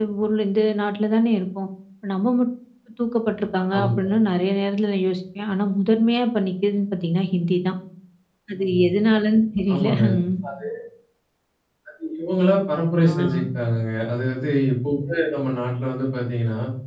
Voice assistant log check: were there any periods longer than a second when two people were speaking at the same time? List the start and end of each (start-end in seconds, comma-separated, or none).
none